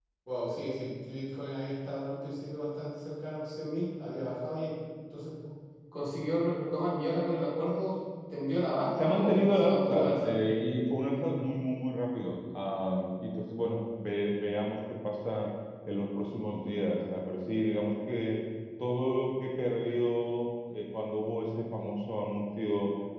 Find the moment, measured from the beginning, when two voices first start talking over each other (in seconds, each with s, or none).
9.0 s